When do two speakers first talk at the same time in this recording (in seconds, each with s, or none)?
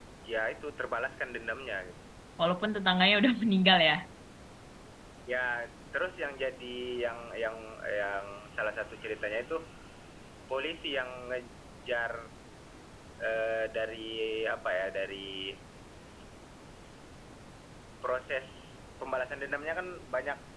none